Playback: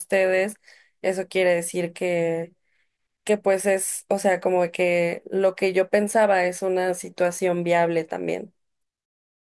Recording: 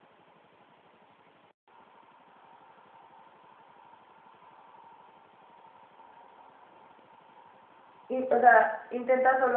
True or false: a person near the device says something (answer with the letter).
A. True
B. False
A